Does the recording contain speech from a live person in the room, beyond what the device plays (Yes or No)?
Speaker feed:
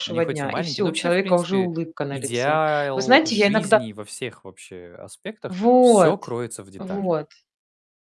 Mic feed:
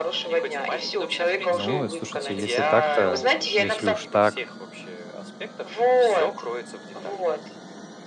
Yes